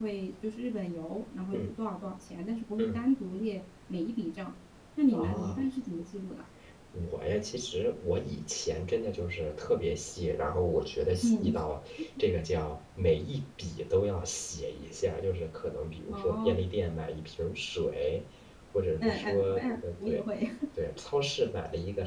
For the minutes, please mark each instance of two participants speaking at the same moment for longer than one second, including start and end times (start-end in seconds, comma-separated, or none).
19.0-20.2